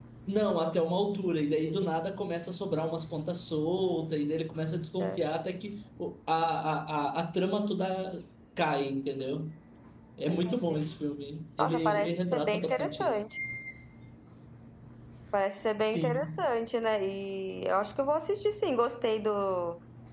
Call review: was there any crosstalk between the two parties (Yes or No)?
Yes